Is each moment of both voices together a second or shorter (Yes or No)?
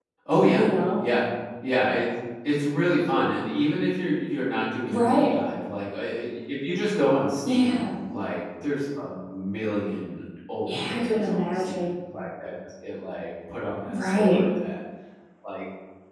No